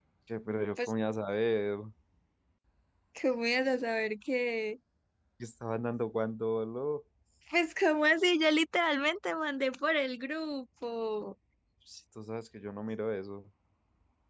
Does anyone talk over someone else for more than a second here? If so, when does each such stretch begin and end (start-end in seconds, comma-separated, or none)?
none